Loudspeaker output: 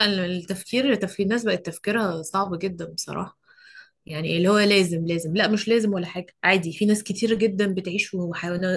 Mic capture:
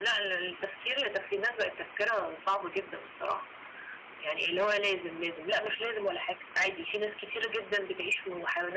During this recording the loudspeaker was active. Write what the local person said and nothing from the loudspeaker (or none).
none